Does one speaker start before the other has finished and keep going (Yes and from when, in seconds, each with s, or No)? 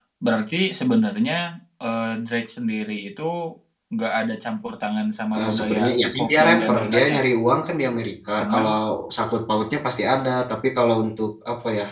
Yes, from 5.4 s